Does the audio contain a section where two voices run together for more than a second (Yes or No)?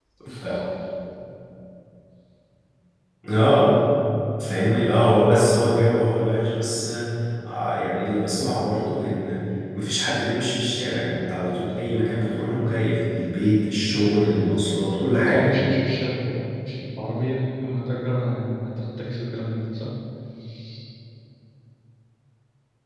No